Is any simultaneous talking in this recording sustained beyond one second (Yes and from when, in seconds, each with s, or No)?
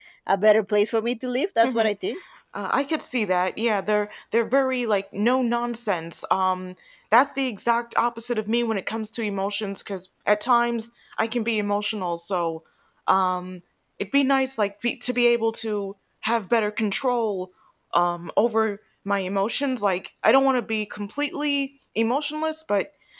No